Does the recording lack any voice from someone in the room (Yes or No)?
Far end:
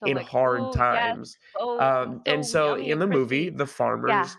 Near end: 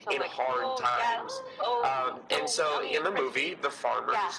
No